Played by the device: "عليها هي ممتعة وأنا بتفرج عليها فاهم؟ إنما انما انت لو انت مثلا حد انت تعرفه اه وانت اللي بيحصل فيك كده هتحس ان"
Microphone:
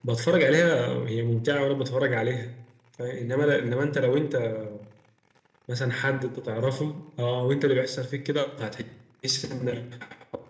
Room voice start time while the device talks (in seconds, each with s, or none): none